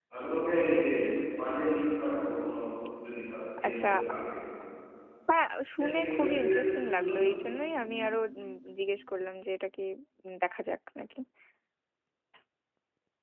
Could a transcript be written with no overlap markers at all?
No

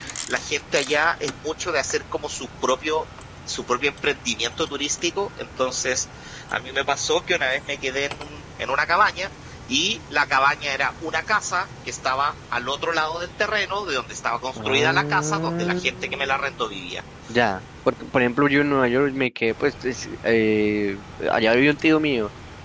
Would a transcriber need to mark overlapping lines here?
Yes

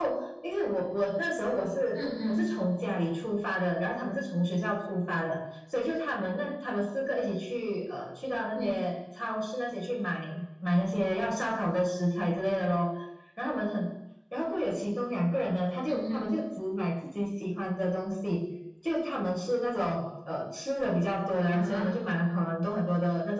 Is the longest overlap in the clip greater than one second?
No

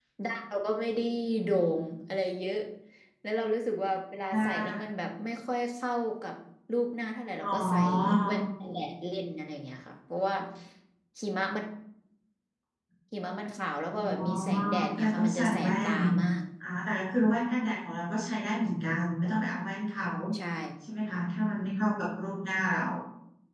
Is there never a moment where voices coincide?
No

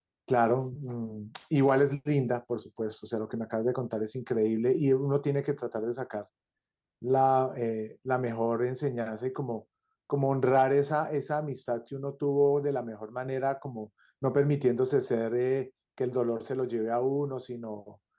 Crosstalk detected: No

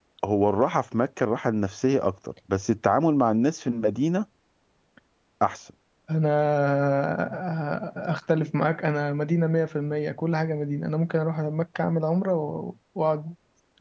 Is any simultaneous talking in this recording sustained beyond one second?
No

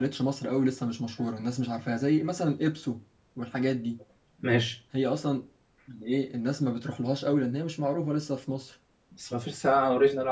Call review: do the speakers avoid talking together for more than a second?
Yes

